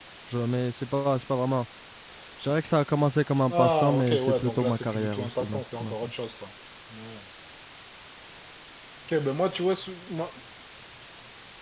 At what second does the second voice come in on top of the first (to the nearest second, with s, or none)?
3 s